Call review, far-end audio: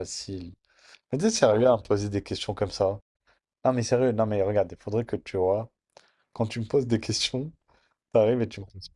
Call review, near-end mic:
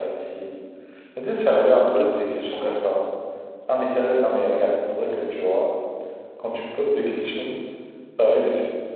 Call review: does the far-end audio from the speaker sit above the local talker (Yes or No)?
Yes